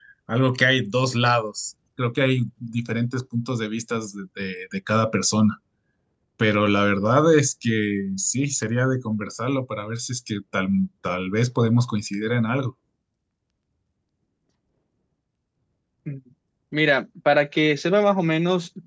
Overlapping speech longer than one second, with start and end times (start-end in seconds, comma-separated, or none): none